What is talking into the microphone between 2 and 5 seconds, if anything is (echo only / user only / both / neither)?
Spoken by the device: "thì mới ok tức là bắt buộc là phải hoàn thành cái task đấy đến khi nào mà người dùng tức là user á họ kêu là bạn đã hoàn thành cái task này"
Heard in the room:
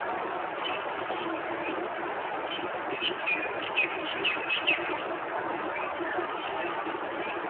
neither